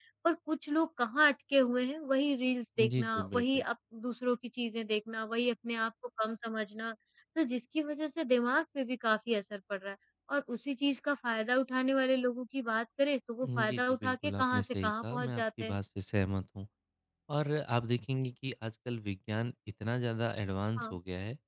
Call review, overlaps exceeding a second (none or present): present